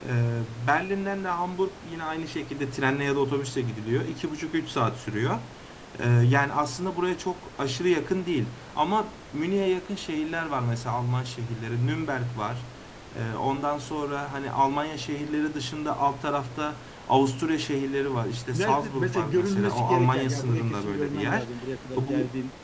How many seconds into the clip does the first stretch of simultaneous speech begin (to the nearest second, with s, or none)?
19 s